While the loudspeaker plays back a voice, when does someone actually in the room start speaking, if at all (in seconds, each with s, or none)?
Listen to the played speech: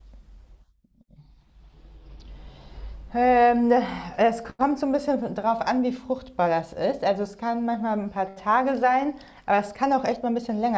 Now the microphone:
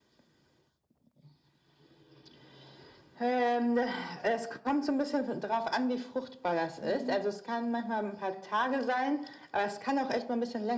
6.8 s